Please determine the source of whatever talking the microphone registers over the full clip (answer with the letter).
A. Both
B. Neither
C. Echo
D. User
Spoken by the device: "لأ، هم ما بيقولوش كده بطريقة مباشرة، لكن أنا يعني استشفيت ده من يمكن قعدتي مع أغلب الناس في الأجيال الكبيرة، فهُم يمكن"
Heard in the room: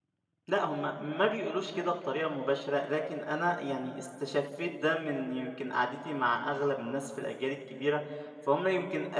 C